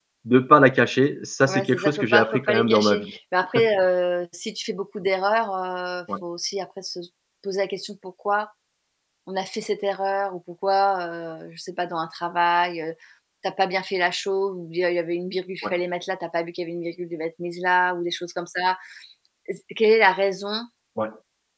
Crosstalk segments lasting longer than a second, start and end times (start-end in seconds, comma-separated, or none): 1.5-3.1